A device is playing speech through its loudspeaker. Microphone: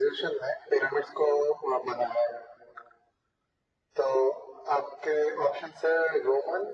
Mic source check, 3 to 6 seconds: echo only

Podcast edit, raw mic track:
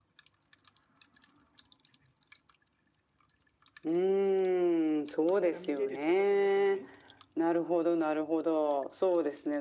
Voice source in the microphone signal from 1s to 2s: neither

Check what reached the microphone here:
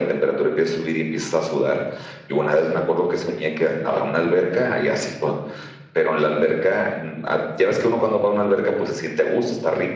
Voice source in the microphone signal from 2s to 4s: echo only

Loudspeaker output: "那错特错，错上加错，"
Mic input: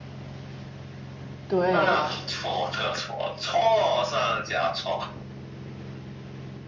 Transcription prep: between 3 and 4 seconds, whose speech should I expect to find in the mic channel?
echo only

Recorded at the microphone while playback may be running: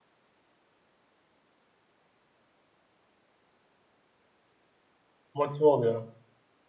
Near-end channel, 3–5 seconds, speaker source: neither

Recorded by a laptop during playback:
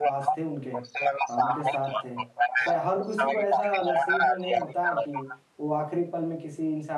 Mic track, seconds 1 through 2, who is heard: both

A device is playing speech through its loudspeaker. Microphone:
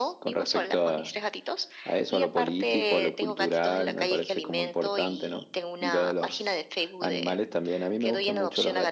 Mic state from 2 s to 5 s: echo only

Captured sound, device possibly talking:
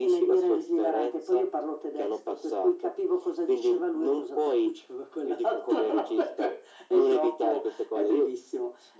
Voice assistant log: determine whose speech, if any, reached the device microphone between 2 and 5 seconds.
echo only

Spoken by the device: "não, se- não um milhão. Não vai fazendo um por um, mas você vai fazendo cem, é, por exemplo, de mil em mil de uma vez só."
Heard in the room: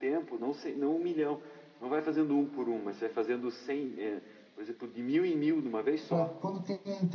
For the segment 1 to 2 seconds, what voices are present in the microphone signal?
echo only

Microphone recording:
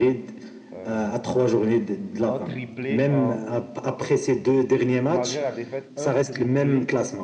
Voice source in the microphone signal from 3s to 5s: both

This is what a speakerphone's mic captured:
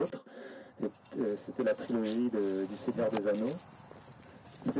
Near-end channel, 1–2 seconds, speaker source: echo only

